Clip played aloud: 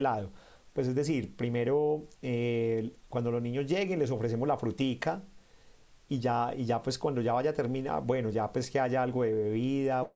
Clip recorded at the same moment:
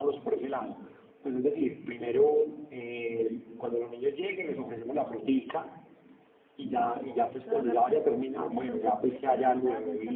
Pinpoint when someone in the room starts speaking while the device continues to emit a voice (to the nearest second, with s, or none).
7 s